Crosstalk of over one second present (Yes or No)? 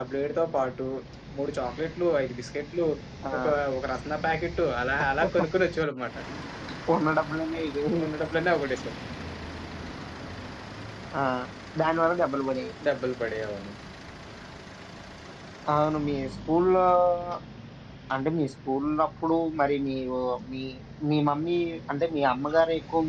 No